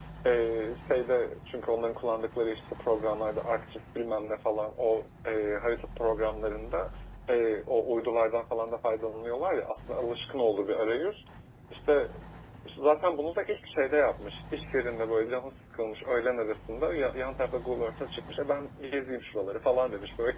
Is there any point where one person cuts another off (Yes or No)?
No